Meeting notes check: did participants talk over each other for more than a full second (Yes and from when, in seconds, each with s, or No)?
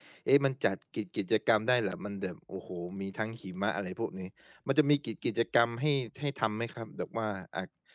No